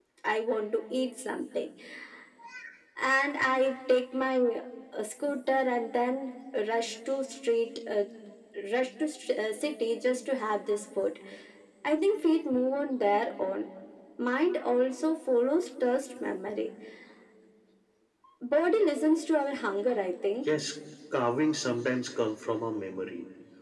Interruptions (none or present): none